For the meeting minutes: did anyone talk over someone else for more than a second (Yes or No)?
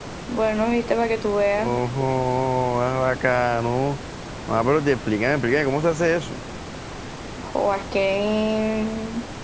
No